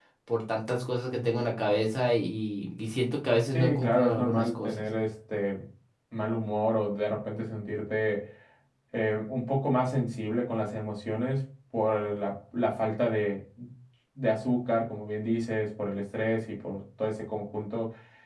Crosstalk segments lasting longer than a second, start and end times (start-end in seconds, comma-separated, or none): 3.5-4.8